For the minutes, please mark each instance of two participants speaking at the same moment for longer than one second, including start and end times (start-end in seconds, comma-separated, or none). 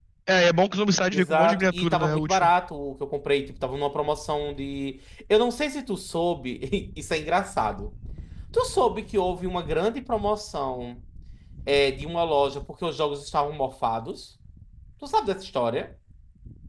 1.1-2.5